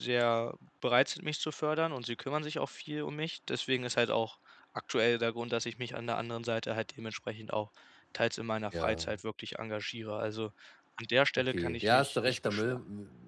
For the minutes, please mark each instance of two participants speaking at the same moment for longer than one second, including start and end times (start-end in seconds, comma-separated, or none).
11.4-12.7